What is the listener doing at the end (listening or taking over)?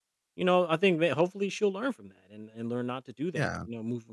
listening